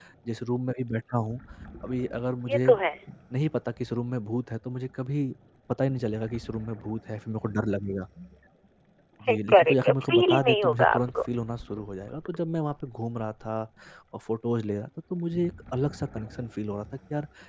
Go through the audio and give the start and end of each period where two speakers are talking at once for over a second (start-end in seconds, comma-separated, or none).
9.5-11.0